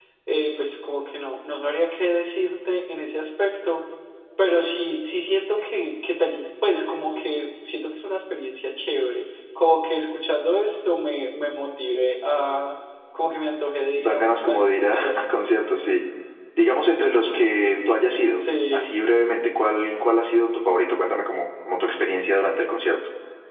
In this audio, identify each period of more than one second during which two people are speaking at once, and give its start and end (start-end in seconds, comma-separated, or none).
14.0-15.4